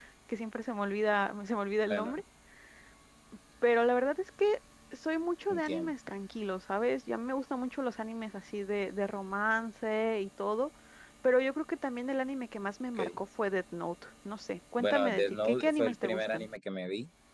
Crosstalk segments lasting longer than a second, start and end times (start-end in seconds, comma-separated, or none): 14.8-16.5